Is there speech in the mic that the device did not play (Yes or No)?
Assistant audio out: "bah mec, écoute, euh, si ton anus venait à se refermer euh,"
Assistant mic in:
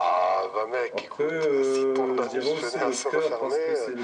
Yes